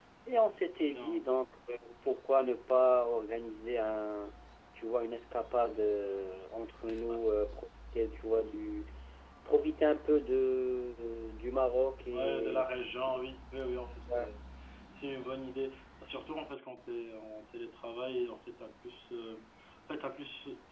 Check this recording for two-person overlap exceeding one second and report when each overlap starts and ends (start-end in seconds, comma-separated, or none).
none